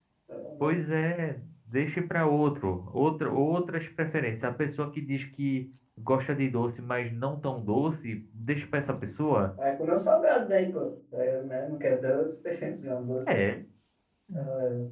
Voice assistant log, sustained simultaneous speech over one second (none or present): none